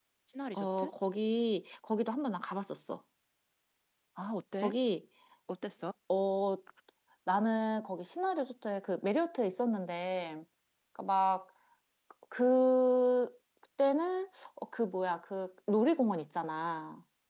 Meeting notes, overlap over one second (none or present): none